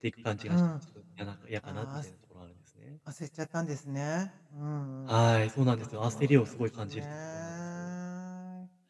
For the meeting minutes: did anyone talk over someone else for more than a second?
Yes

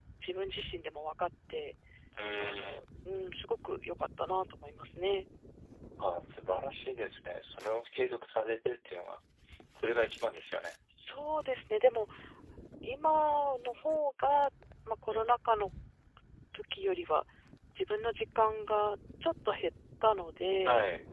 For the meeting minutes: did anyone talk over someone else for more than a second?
No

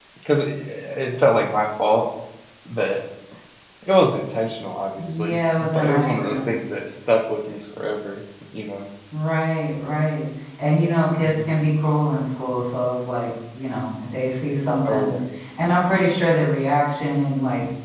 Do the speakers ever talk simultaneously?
Yes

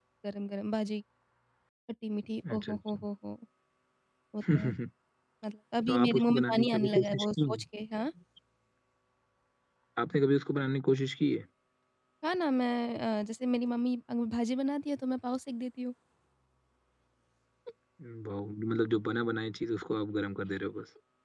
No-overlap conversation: No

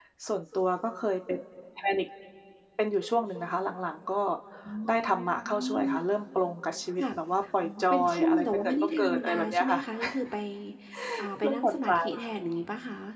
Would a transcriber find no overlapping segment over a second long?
No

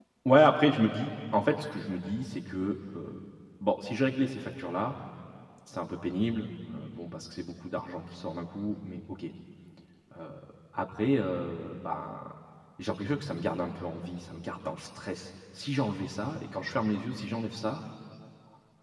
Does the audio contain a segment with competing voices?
No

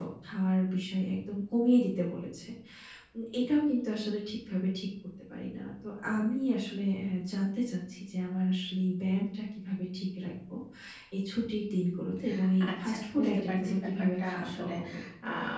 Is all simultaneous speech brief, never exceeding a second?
No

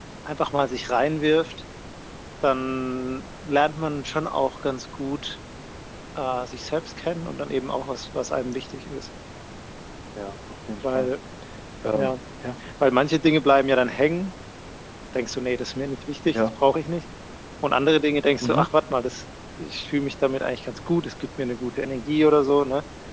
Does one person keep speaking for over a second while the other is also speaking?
No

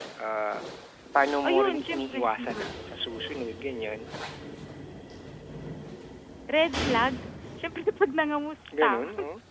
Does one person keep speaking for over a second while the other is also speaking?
Yes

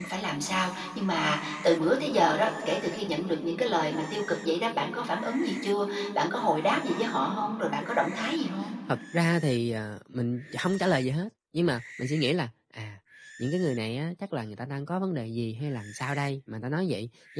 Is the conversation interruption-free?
Yes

